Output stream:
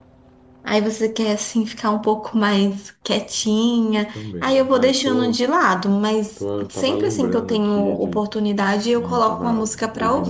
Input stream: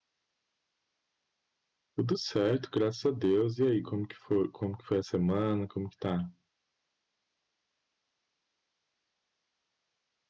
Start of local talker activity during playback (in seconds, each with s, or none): 1.9 s